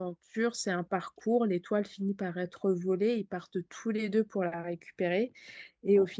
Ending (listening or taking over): listening